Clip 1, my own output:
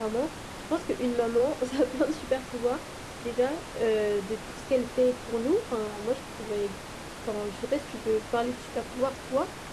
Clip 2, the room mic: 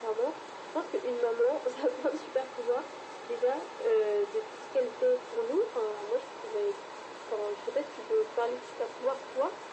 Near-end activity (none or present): none